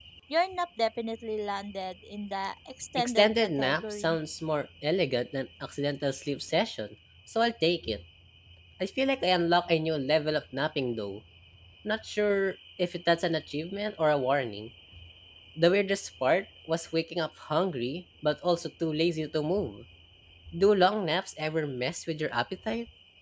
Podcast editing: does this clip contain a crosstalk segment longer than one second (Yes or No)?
Yes